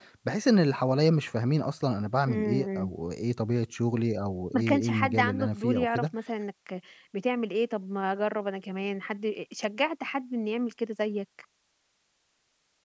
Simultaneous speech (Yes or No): Yes